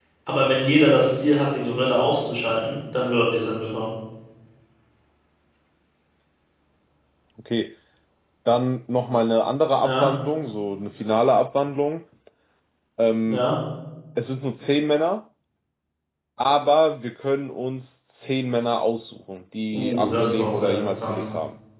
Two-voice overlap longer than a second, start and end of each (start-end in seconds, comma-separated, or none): 19.7-21.2